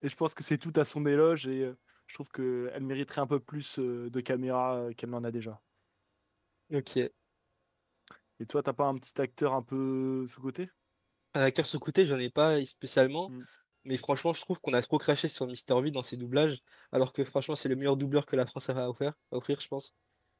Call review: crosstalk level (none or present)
none